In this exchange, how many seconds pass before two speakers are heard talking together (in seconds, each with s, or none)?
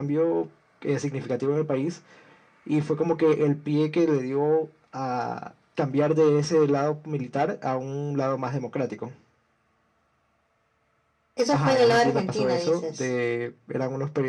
11.5 s